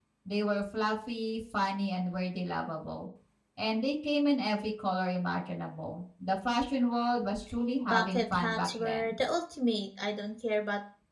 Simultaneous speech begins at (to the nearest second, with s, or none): 8 s